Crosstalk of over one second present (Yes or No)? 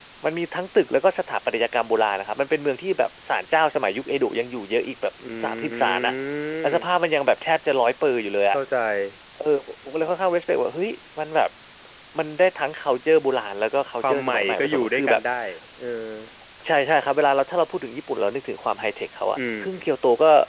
Yes